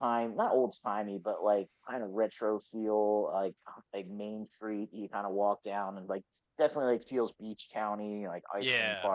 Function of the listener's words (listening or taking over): taking over